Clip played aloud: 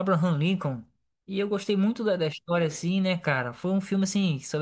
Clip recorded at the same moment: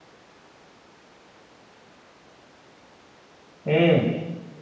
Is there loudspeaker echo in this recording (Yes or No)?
No